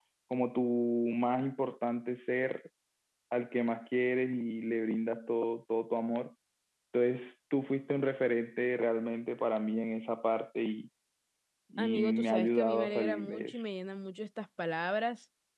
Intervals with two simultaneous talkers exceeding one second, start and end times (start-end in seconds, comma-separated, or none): 11.8-13.6